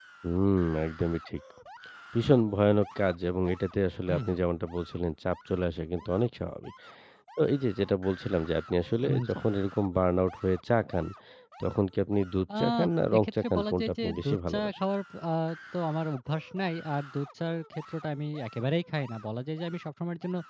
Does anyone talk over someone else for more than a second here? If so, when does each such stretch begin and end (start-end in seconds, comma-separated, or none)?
13.2-14.8